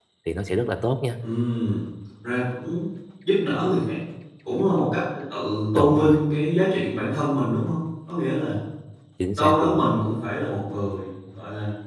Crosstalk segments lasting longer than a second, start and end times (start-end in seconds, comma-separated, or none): none